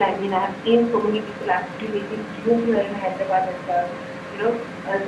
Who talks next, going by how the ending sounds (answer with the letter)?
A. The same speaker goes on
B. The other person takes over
A